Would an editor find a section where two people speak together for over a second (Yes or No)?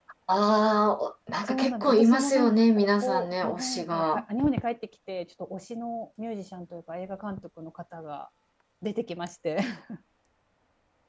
Yes